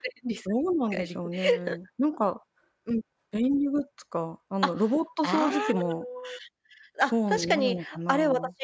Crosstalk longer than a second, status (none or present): present